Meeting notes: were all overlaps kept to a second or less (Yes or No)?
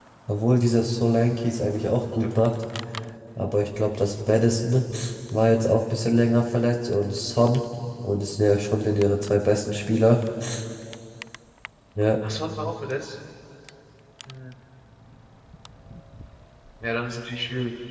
Yes